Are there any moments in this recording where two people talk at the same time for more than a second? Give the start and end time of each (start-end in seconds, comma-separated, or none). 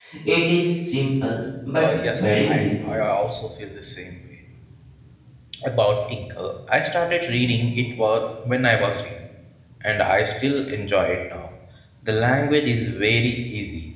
1.8-3.0